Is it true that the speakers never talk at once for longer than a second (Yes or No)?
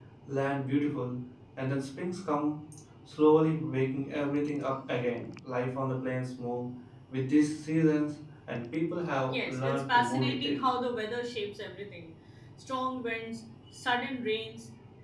No